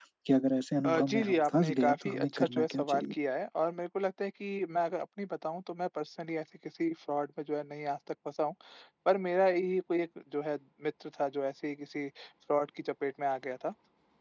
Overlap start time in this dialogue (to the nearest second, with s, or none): 1 s